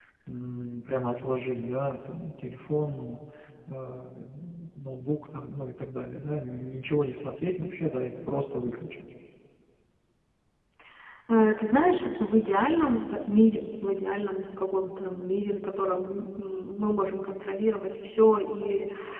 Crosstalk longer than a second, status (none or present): none